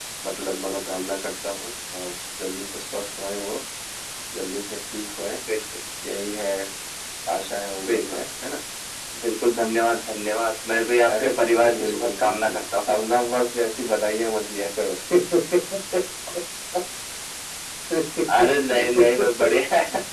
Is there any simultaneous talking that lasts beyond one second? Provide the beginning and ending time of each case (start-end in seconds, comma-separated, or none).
11.2-12.6